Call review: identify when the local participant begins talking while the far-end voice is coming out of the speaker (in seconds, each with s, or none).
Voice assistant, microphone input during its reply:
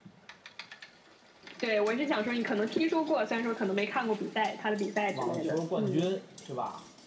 5.1 s